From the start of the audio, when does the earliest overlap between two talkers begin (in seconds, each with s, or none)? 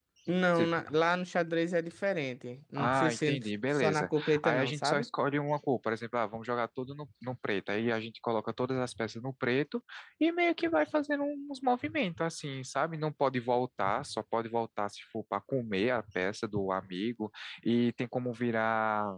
2.8 s